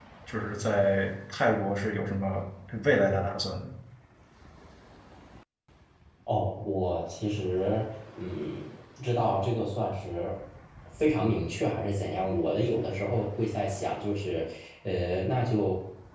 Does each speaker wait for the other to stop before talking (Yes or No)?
Yes